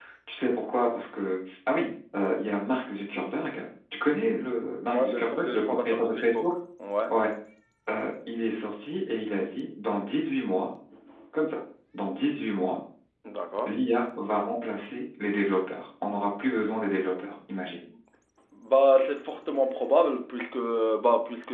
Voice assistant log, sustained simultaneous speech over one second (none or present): present